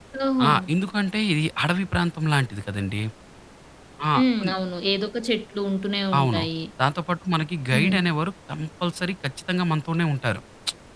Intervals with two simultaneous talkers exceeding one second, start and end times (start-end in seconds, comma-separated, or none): none